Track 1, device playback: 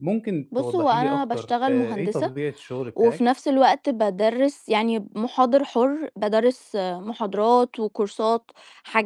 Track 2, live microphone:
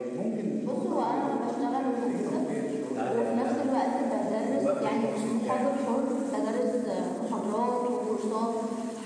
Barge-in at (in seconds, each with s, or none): 2.9 s